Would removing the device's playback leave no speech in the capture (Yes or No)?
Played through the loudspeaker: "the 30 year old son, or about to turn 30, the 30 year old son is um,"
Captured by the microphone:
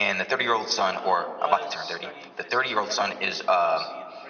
No